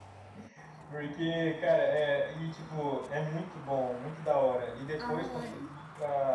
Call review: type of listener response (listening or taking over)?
listening